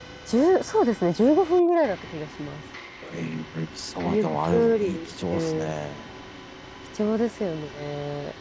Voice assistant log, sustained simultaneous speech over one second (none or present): present